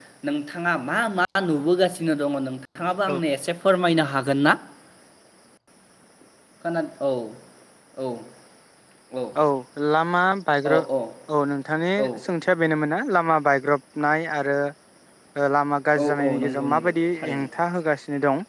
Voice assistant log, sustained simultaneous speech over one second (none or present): present